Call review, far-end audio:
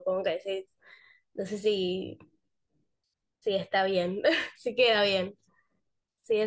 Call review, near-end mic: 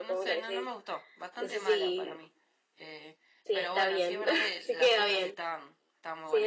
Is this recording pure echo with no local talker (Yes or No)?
No